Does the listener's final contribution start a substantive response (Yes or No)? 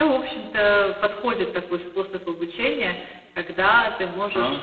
No